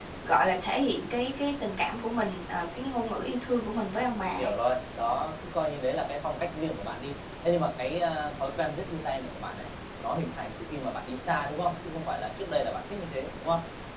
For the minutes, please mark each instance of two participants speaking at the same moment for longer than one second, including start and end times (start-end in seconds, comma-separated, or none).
none